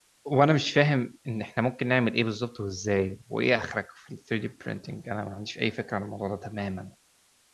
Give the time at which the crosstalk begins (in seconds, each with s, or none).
none